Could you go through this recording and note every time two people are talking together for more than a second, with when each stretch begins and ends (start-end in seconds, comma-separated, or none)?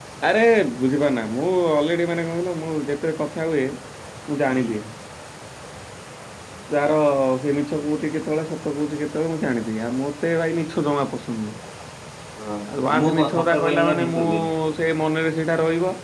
13.0-14.3